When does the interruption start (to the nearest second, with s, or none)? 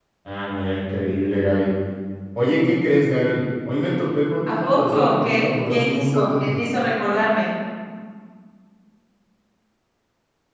4 s